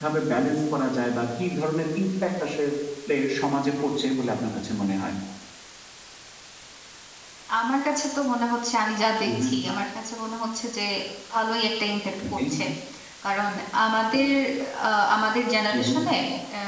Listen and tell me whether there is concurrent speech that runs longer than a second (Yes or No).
No